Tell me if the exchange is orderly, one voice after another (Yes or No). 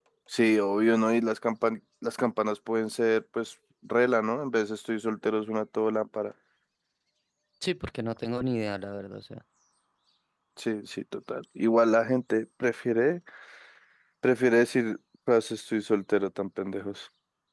Yes